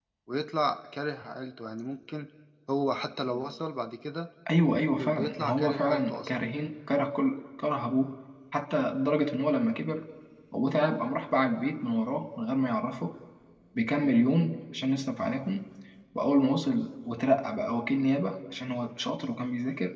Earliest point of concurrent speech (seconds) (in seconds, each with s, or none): 5.0 s